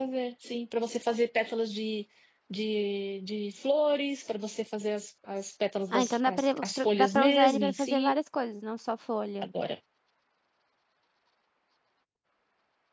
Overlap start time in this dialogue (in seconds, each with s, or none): 5.9 s